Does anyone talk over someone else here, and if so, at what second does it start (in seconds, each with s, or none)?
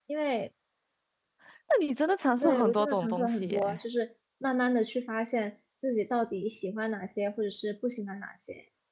2.4 s